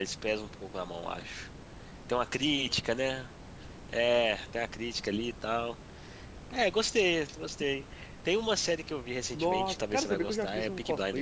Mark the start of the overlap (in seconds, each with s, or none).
9.3 s